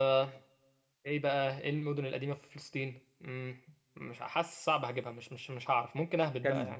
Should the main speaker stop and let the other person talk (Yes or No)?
Yes